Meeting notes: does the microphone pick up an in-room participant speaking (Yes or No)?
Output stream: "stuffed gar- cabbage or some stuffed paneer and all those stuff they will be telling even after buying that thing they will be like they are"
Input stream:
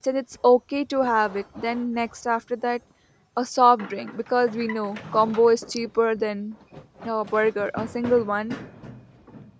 Yes